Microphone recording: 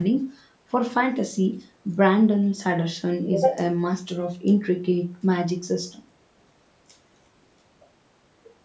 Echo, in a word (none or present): none